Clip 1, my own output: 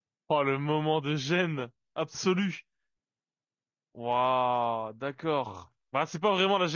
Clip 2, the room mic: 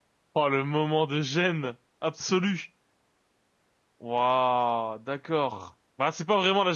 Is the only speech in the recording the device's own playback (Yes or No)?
Yes